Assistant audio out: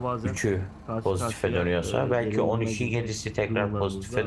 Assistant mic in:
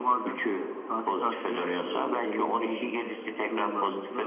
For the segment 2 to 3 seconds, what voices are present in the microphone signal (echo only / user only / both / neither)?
echo only